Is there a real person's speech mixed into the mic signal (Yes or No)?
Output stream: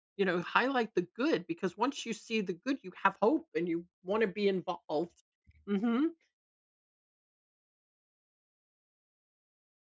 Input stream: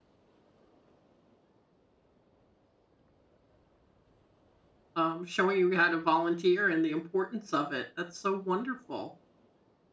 Yes